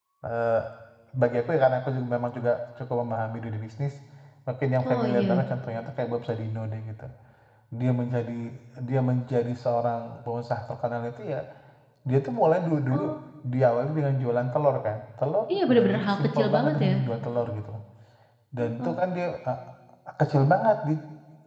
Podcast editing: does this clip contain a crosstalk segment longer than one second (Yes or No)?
Yes